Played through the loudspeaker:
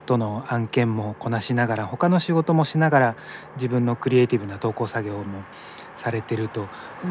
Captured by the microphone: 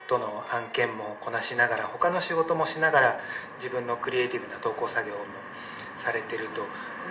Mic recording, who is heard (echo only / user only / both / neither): echo only